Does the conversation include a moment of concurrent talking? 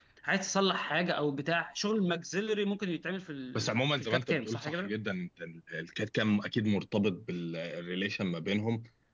Yes, from 3.6 s

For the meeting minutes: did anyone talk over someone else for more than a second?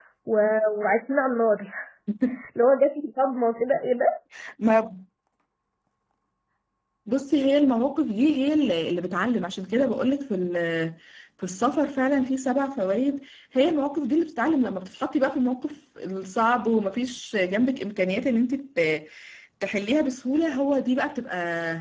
No

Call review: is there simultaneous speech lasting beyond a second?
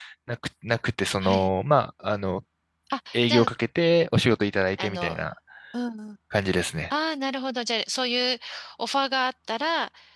No

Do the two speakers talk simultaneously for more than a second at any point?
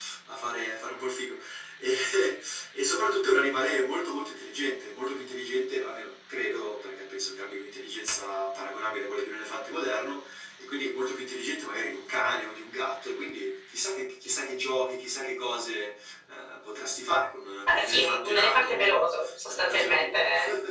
Yes, from 17.7 s

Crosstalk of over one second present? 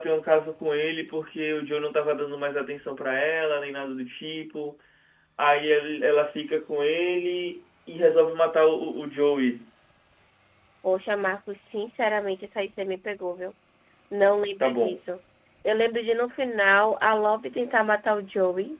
No

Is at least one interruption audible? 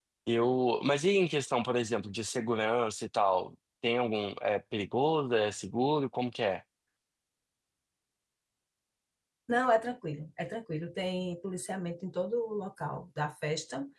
No

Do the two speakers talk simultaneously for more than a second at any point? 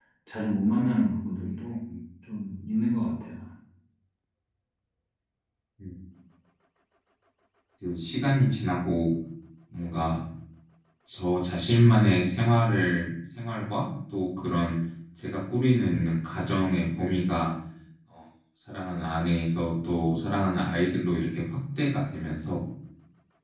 No

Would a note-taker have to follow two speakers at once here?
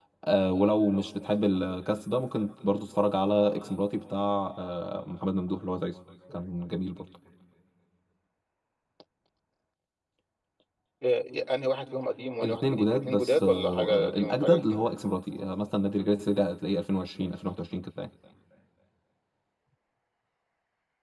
Yes, from 12.4 s

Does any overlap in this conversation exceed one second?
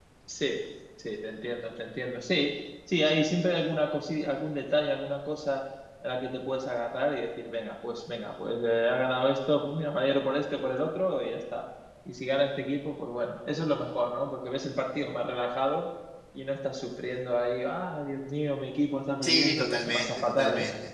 Yes, from 19.2 s

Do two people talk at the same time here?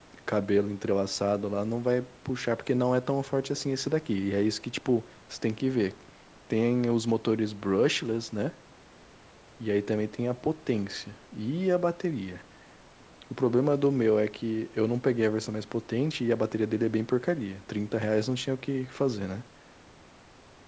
No

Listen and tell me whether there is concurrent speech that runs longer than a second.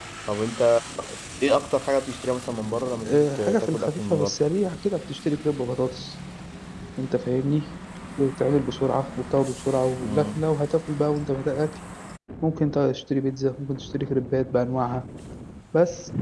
Yes, from 3.1 s

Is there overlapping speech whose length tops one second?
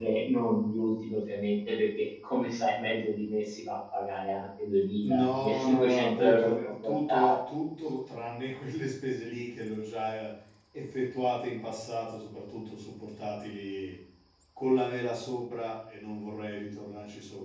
Yes, from 5.0 s

